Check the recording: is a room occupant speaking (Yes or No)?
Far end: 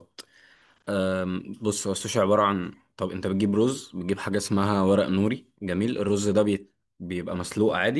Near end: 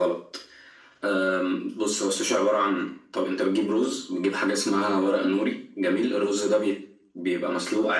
No